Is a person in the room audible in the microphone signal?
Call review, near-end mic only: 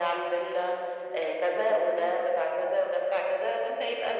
No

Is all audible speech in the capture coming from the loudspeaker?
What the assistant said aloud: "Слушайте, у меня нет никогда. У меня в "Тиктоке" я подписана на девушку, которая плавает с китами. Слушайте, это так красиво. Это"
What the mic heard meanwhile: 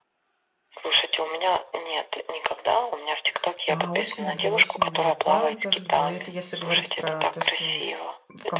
No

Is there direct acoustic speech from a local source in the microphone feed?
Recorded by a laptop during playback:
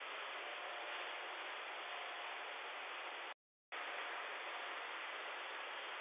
No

